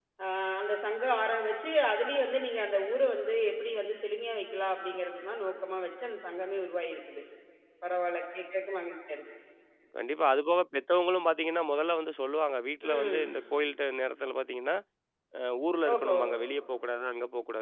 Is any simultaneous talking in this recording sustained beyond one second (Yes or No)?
No